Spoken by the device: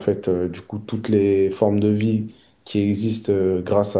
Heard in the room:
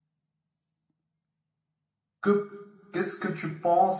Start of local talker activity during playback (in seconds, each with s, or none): 2.2 s